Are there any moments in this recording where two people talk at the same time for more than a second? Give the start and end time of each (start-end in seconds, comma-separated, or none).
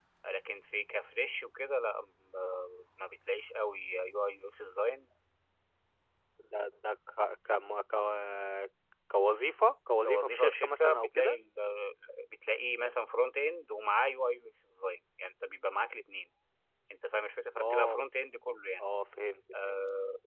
10.0-11.3